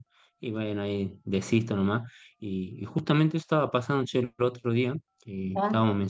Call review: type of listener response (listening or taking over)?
listening